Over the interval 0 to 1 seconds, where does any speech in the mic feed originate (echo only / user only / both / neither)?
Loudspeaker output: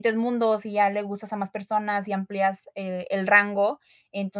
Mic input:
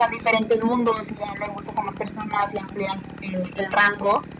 echo only